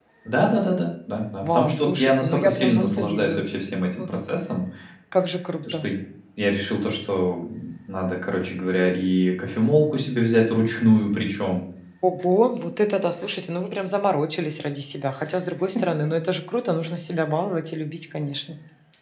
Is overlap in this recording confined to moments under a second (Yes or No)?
No